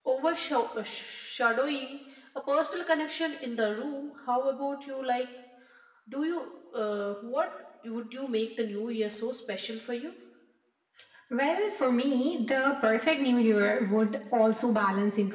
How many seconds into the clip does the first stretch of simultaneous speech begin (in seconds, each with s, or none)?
none